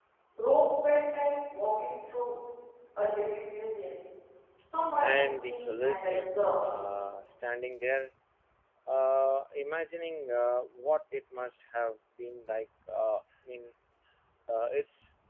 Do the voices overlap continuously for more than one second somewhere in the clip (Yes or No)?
Yes